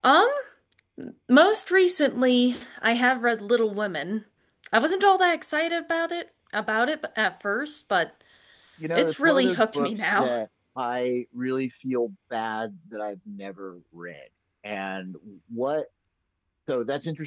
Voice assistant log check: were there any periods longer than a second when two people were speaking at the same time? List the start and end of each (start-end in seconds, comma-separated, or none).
8.9-10.3